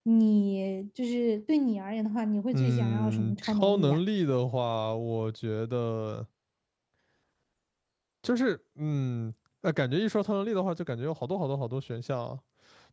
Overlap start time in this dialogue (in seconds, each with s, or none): 2.5 s